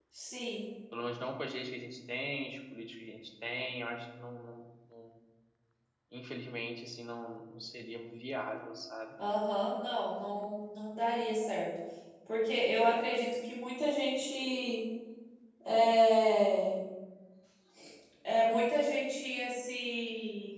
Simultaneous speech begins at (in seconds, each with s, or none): none